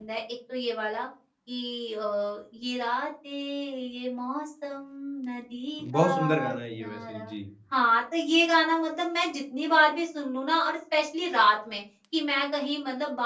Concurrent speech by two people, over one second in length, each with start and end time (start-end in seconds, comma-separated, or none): 5.8-7.3